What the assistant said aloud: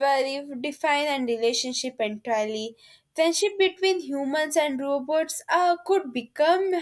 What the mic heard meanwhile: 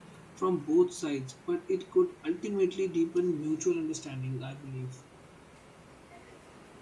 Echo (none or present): none